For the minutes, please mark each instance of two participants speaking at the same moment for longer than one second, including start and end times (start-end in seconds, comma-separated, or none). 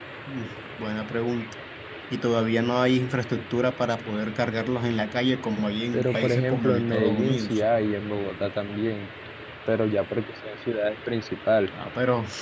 5.9-7.6